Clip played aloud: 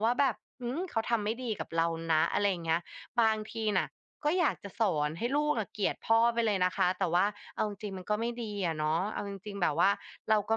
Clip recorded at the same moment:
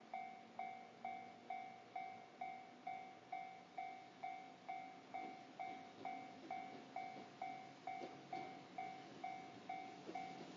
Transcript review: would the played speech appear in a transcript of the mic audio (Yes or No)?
No